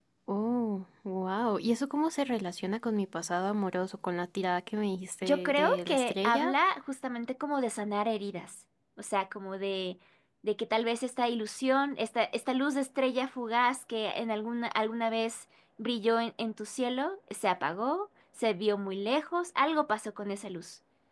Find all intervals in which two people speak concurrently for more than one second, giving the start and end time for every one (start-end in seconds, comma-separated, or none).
5.2-6.5